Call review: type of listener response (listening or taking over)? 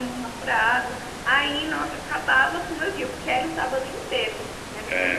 taking over